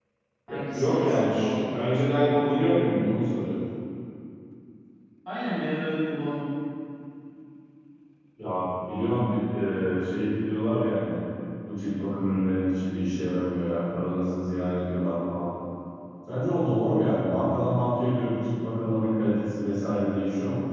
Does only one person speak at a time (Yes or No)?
No